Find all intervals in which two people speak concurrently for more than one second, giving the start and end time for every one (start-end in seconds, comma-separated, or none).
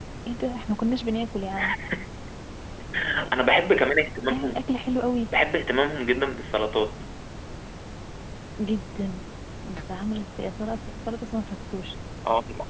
none